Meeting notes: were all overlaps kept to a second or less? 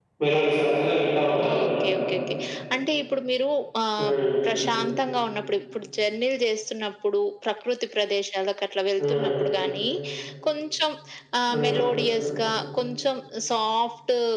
Yes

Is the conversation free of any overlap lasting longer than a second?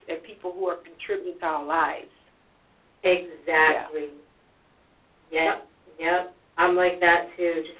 Yes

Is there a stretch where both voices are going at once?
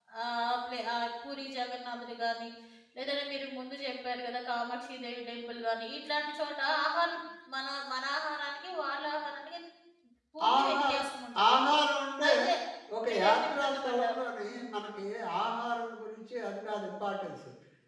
Yes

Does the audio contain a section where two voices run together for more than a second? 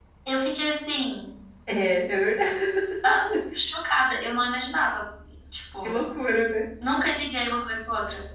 No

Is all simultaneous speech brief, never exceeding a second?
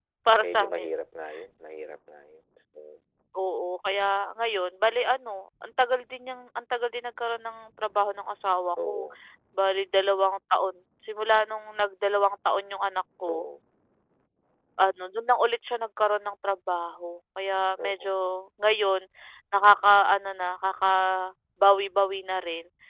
Yes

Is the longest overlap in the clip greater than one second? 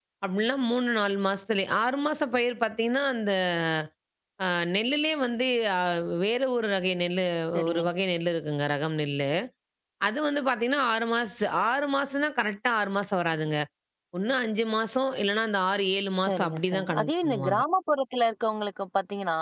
Yes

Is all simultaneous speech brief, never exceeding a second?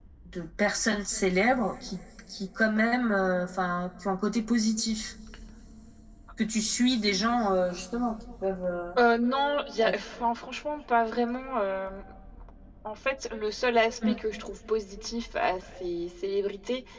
Yes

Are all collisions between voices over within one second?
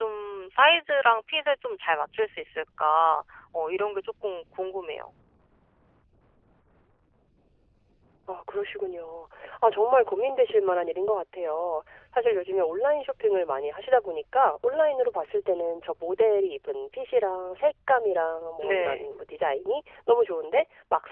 Yes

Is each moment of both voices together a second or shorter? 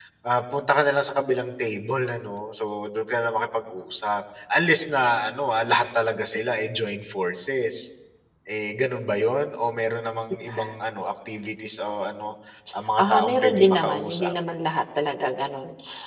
No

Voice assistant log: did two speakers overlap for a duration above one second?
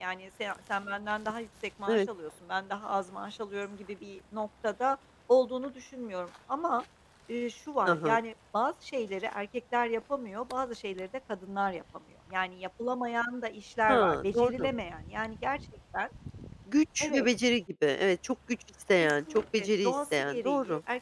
Yes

